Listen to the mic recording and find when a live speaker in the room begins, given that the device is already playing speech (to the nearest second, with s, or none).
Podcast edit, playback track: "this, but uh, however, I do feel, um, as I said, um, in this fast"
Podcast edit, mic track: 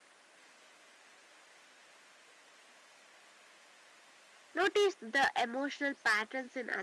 5 s